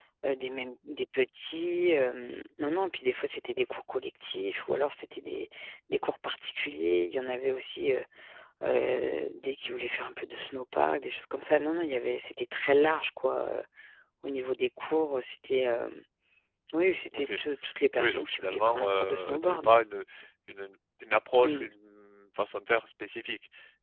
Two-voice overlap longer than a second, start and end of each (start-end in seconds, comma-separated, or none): 18.0-19.7